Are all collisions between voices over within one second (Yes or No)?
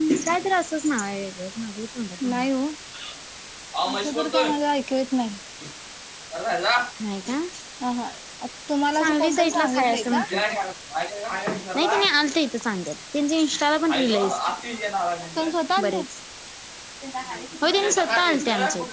No